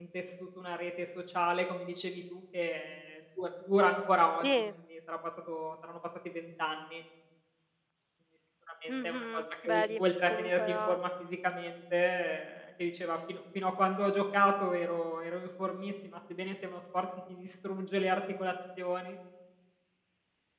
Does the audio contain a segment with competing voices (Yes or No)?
Yes